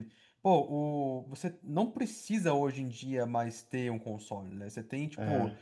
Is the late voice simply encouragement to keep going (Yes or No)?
Yes